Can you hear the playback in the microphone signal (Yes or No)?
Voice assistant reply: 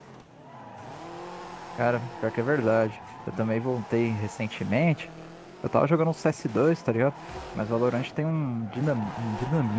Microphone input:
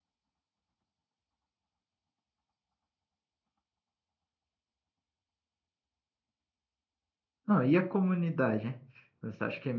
No